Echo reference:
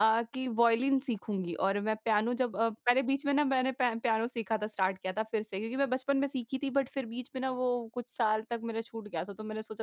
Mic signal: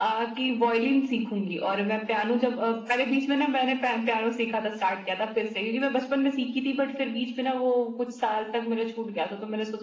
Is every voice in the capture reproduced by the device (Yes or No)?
Yes